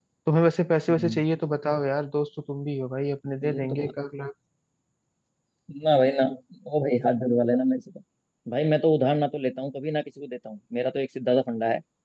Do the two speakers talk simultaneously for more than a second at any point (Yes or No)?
No